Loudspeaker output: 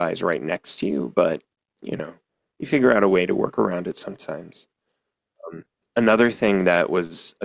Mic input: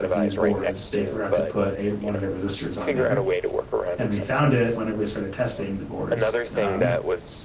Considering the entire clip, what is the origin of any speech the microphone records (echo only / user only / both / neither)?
both